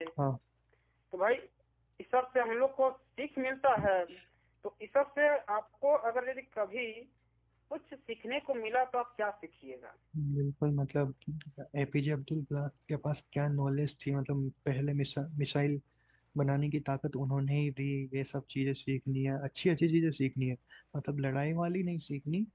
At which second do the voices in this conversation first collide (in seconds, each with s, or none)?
none